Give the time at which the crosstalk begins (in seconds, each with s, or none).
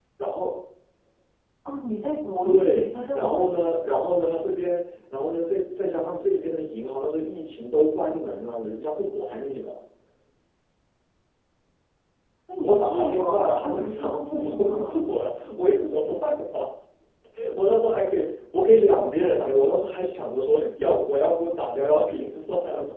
2.4 s